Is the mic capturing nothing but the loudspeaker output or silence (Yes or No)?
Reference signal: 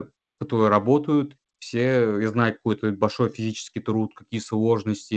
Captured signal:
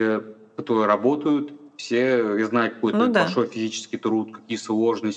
No